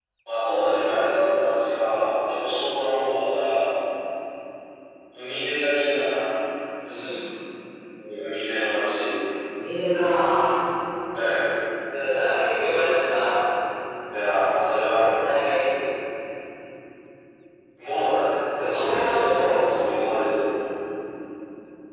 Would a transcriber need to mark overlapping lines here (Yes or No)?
Yes